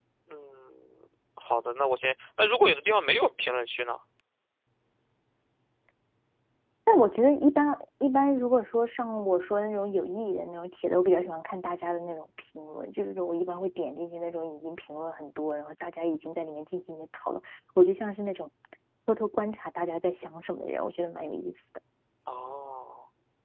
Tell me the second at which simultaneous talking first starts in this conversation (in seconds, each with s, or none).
none